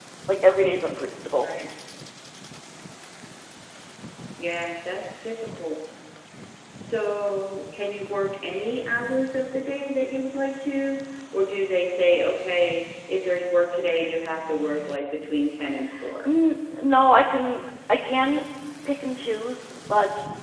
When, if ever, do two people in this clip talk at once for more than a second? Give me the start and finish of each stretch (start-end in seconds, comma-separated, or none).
none